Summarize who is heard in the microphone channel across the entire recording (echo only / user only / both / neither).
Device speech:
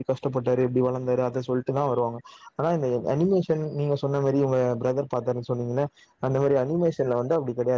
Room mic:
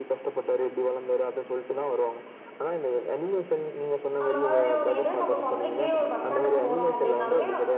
both